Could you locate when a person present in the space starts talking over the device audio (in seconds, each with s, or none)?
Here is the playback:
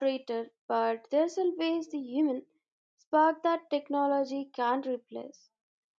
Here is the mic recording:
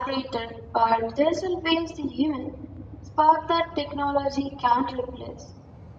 none